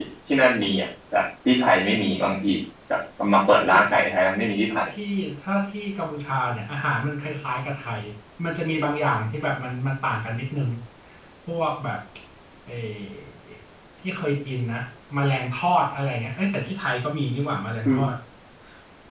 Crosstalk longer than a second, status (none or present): none